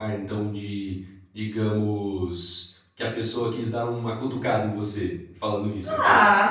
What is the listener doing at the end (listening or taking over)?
taking over